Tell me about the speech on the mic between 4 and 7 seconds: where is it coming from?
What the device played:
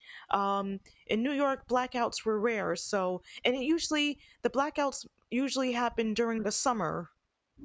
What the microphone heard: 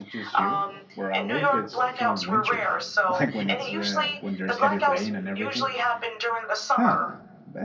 both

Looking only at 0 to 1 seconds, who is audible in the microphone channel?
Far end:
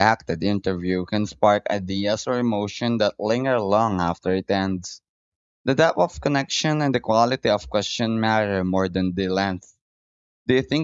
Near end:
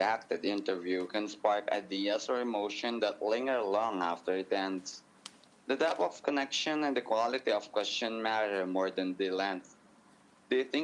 echo only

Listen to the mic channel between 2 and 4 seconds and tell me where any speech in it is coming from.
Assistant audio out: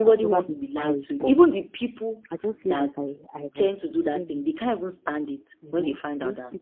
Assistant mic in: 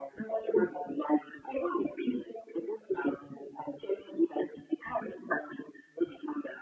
echo only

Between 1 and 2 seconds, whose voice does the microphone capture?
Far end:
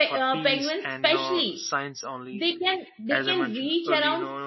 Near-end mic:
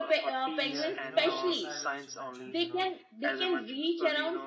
both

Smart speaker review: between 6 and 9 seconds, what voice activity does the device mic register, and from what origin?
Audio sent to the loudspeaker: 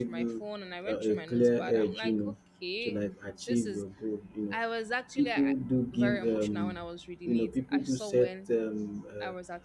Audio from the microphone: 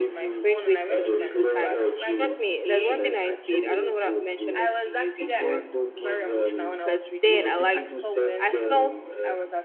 both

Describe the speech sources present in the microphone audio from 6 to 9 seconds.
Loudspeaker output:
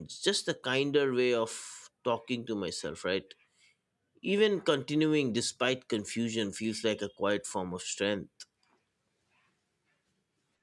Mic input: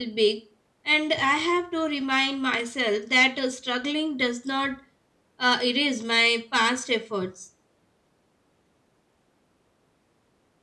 user only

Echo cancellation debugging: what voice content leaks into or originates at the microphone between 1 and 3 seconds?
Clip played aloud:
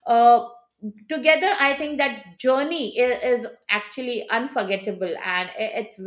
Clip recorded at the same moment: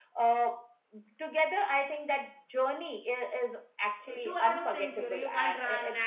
echo only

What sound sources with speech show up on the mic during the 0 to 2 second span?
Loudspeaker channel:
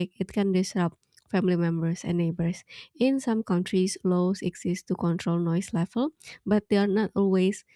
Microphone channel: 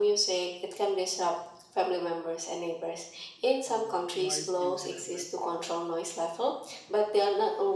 echo only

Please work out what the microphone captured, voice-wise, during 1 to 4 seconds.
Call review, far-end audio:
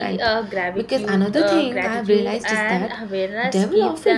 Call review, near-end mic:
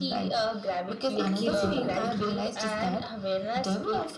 both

